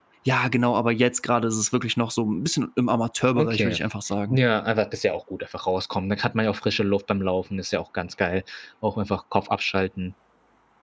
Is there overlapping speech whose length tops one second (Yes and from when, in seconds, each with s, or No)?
No